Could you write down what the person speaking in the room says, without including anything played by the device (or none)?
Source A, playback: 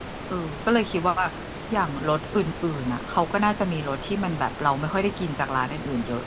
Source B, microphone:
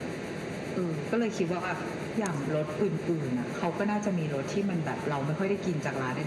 none